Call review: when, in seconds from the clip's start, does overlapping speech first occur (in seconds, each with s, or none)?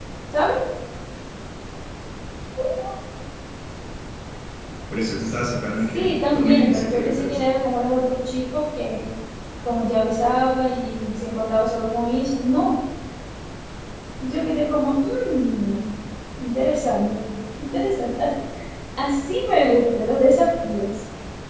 5.9 s